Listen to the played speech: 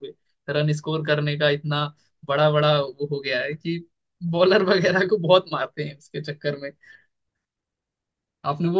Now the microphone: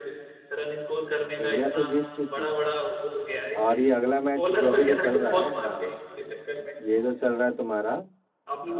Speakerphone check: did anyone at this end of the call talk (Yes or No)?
Yes